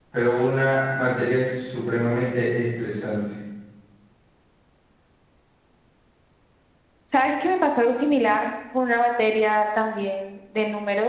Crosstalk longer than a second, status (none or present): none